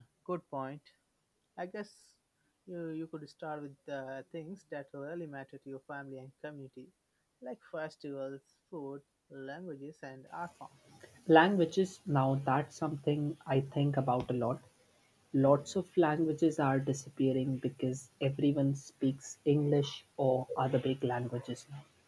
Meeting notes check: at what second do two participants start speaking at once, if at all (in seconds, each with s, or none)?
none